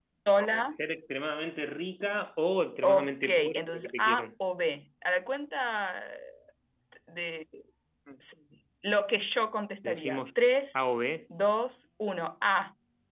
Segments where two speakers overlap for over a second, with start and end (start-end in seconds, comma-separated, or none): 2.8-4.2